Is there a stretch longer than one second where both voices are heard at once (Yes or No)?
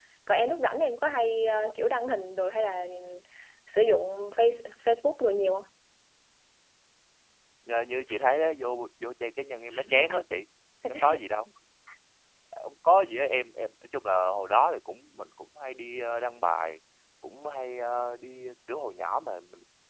No